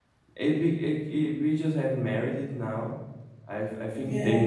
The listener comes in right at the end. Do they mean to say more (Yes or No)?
No